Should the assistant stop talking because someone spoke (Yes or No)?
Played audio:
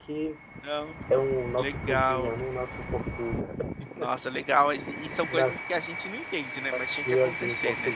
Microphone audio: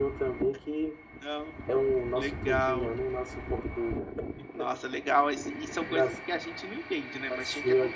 No